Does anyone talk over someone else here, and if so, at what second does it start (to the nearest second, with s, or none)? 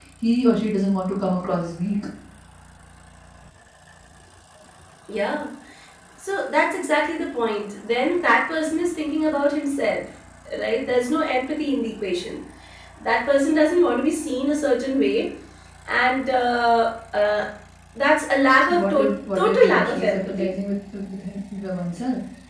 19 s